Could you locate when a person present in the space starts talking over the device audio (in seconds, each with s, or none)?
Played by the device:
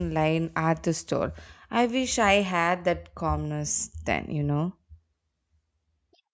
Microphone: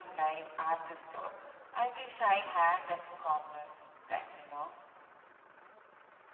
none